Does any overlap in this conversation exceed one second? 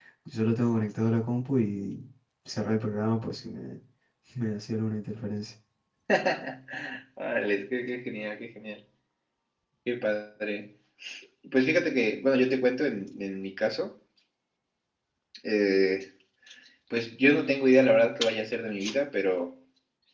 No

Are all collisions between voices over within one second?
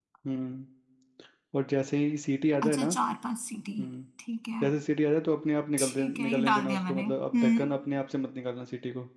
No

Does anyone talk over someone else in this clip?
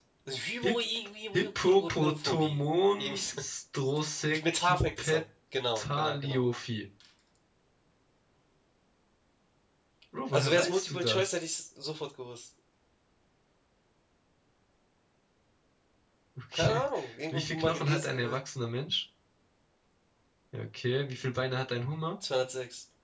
Yes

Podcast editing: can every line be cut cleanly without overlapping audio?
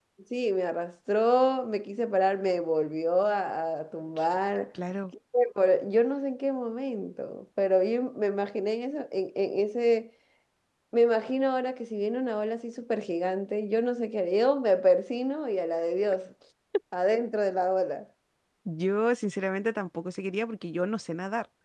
Yes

